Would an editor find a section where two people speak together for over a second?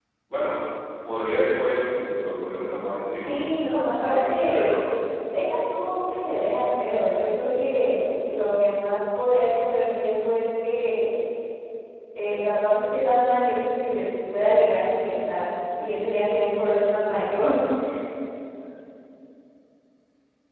Yes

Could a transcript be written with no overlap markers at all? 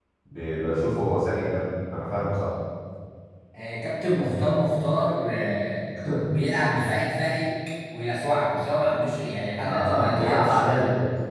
No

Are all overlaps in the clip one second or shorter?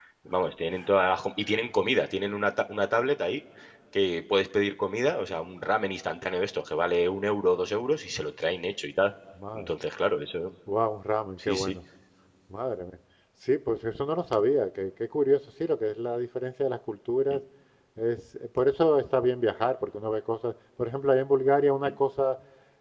Yes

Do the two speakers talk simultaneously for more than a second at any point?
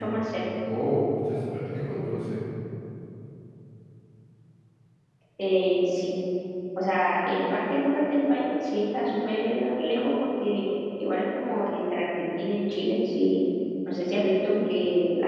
No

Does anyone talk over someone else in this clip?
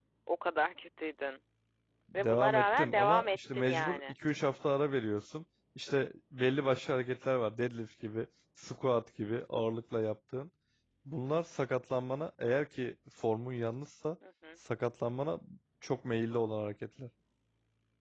Yes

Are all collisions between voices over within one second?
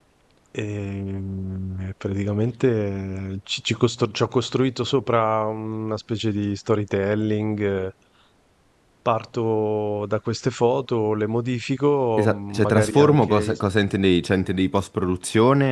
No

